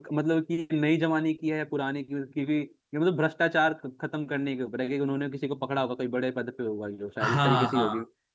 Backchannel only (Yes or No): No